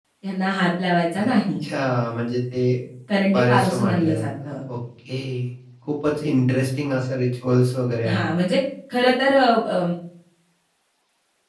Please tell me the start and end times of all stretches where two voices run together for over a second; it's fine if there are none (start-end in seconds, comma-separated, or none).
3.3-4.6